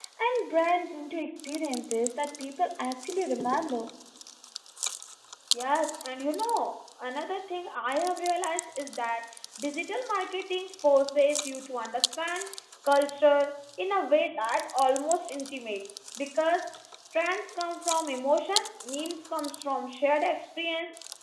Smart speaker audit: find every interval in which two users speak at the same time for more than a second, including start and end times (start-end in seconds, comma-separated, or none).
none